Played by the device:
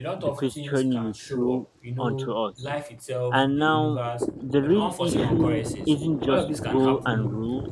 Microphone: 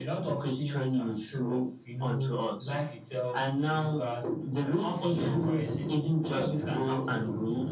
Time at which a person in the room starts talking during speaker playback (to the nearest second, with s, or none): none